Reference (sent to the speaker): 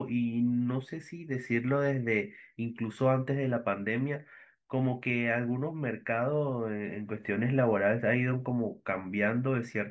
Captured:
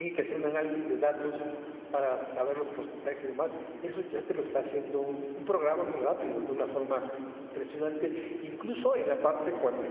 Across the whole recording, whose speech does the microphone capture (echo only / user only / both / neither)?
user only